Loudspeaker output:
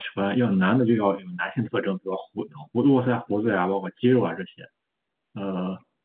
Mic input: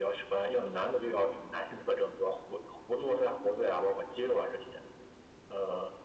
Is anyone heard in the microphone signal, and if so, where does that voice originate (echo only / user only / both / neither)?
echo only